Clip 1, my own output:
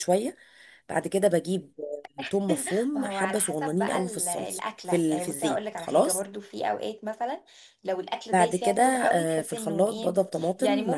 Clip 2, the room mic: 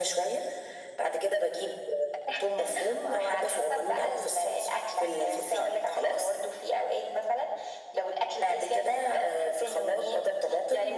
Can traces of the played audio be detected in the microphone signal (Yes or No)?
Yes